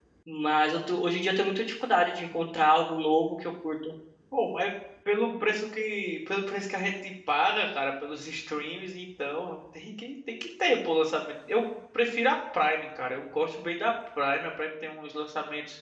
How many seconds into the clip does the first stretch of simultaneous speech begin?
none

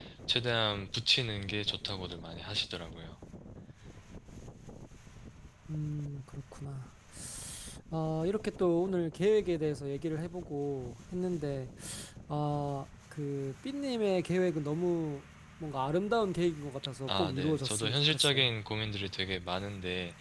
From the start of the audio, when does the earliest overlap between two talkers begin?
17 s

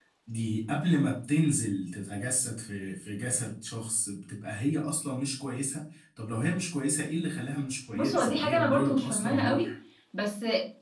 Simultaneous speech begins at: 8 s

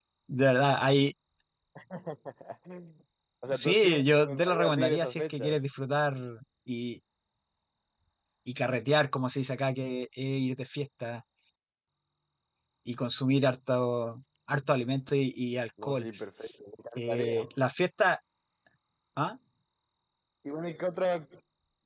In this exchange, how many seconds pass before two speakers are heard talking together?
4 s

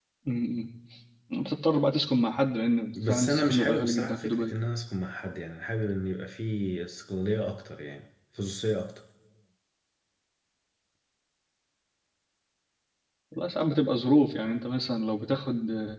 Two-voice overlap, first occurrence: 3 s

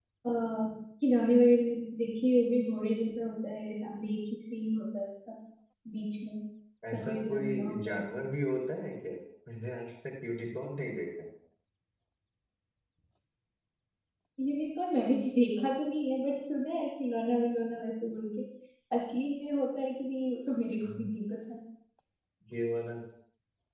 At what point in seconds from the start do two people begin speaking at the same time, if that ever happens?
7 s

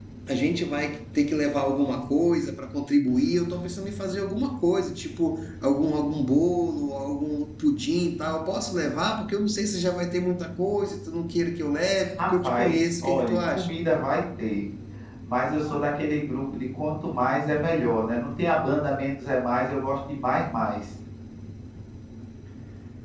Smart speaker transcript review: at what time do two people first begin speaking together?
12 s

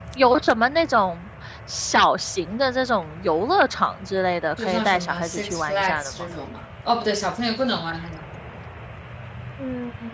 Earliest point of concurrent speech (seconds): 5 s

